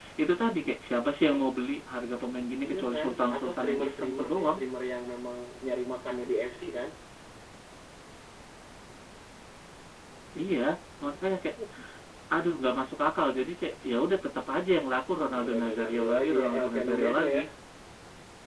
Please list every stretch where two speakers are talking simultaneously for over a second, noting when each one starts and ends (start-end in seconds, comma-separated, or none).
2.7-4.6, 15.2-17.4